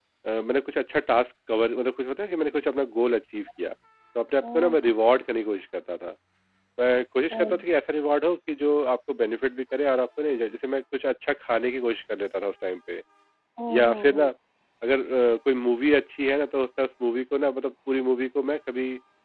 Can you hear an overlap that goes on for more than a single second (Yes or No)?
No